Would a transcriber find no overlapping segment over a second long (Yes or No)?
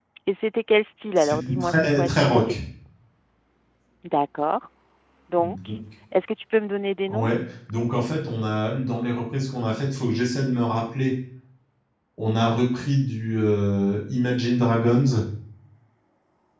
No